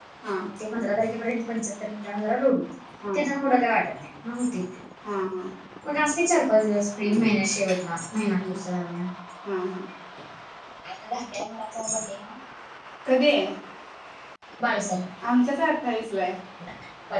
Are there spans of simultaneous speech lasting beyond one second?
No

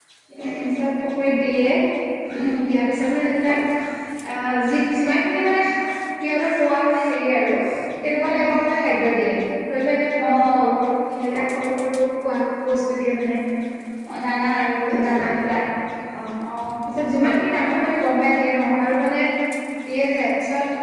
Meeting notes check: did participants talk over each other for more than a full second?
No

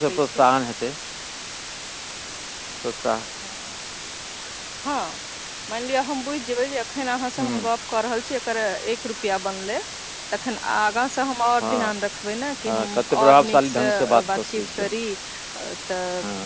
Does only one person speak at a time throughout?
No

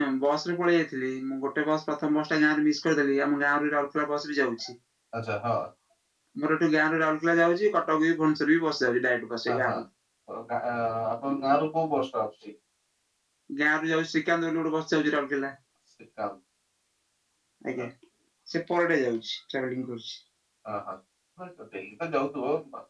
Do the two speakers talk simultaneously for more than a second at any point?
No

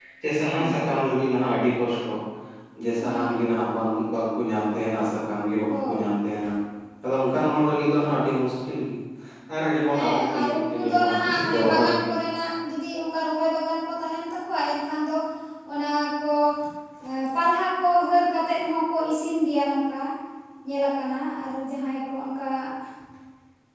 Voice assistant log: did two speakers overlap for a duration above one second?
Yes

